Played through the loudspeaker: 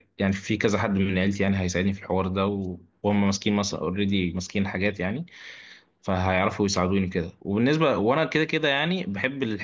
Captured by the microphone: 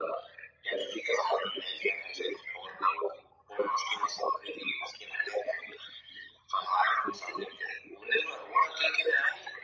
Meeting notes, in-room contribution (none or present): none